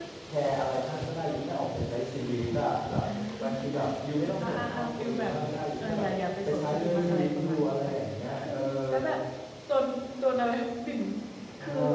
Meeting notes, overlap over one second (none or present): present